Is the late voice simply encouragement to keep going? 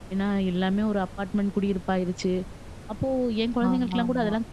Yes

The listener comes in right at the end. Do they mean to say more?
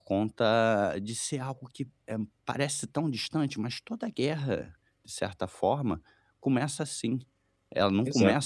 No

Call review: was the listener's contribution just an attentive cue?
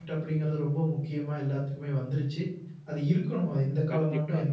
Yes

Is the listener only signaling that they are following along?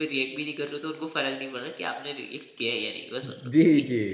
No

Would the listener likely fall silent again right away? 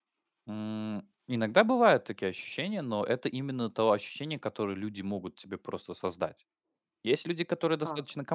Yes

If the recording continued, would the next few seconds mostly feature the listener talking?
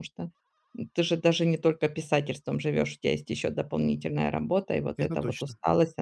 No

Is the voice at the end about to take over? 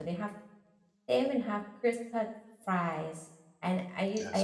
No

